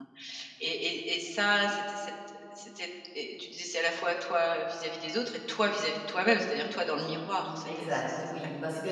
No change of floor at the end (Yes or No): No